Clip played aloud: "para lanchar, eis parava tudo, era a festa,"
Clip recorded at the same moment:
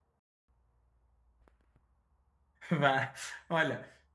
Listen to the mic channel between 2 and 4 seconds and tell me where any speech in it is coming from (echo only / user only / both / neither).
user only